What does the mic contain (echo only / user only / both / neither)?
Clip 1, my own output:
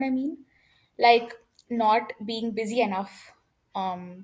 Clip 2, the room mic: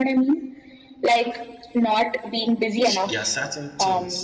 both